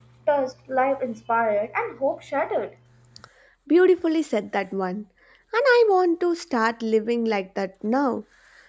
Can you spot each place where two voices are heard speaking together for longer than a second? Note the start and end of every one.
none

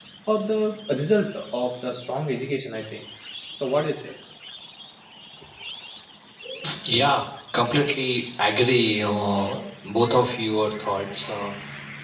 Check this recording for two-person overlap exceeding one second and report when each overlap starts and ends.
none

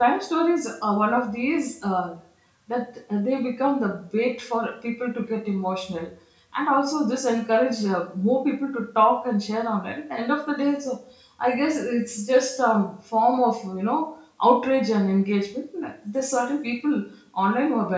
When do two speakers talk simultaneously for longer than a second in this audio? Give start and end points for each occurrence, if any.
none

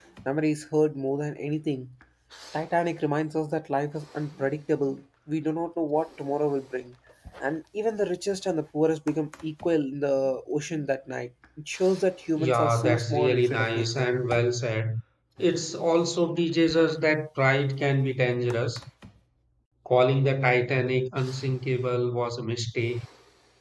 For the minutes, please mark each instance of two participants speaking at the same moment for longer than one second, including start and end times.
12.4-14.1

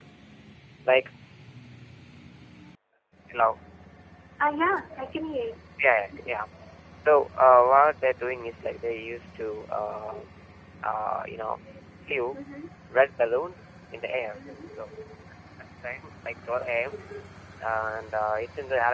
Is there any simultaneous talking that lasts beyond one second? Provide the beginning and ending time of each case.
none

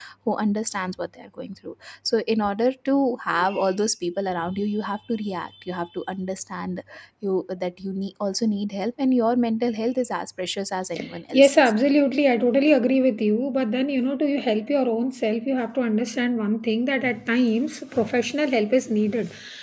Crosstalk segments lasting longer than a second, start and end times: none

